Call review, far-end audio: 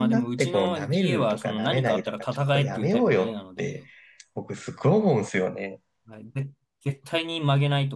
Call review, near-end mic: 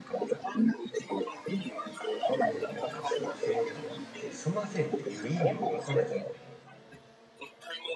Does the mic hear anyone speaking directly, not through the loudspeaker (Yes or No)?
Yes